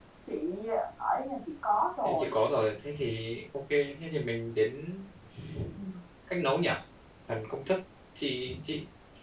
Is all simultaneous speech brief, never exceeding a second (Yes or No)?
Yes